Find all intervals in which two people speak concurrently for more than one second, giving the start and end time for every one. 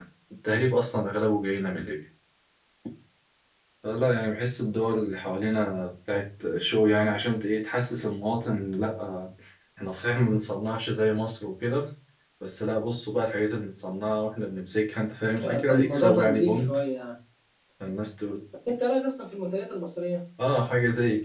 15.4-16.8

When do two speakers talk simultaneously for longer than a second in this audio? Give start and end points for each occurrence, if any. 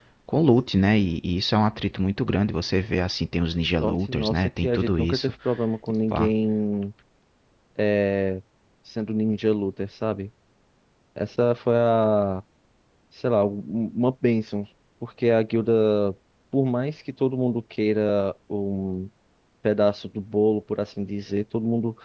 3.8-5.3

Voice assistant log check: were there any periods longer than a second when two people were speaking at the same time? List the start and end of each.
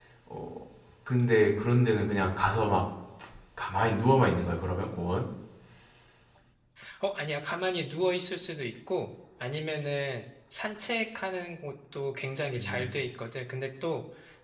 none

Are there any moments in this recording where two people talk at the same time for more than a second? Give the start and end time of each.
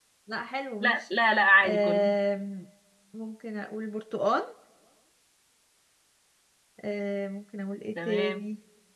none

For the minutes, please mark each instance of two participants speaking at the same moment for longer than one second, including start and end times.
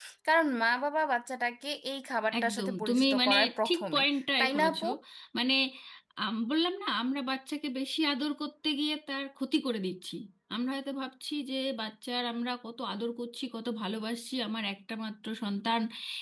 2.4-4.0

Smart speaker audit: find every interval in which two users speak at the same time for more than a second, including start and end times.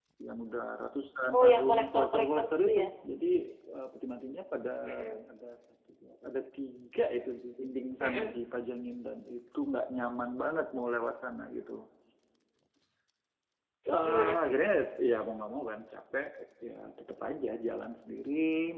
1.4-2.8

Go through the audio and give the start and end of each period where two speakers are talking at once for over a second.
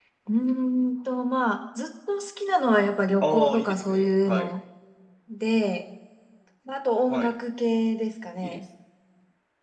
3.2-4.5

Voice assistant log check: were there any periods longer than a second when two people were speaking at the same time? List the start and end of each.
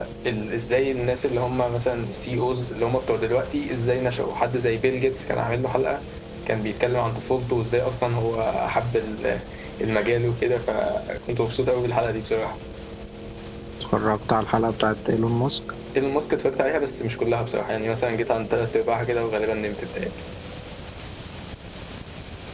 none

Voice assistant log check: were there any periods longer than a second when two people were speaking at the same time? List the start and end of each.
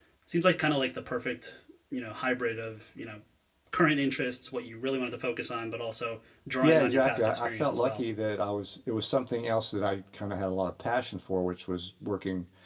6.6-8.1

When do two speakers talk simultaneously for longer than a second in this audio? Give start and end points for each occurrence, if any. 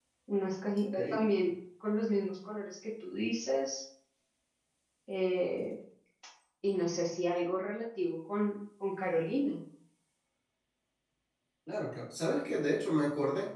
none

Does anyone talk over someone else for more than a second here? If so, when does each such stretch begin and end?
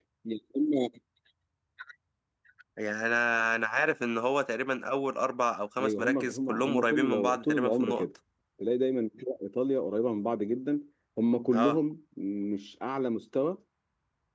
5.8-8.0

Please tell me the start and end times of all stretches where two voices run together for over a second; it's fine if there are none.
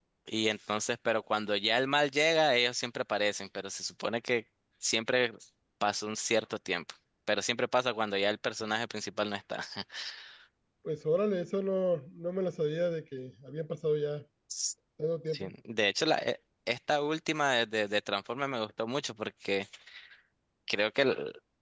none

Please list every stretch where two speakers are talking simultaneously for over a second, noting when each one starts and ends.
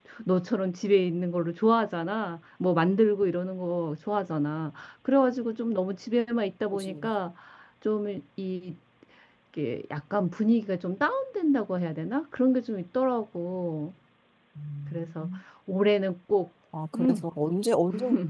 none

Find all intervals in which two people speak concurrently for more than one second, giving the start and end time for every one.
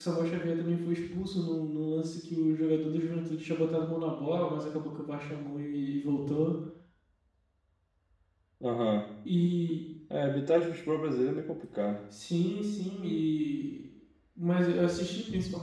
none

